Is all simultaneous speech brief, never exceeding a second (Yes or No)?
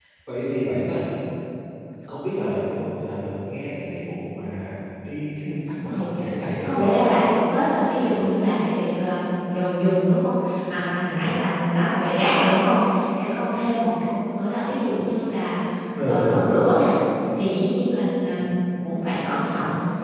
Yes